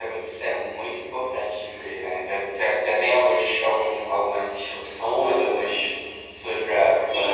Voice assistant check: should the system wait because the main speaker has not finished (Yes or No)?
No